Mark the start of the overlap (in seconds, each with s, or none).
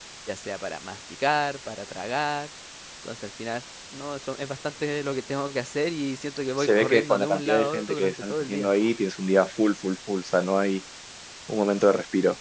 6.6 s